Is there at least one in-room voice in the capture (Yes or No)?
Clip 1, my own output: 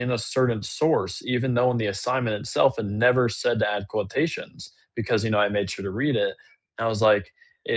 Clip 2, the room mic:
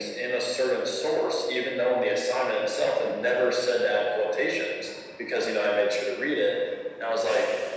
No